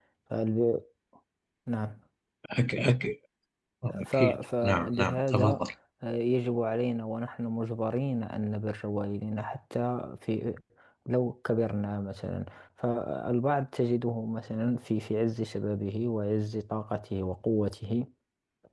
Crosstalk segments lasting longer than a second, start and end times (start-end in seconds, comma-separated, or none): 4.1-5.6